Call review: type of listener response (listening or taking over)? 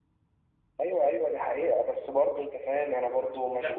taking over